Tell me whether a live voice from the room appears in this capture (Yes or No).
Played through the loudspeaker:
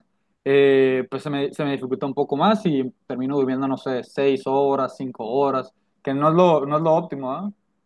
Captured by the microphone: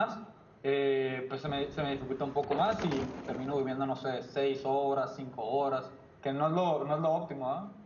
No